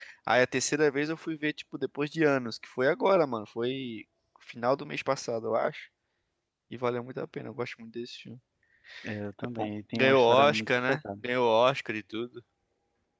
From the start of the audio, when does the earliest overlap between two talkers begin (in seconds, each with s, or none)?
9.6 s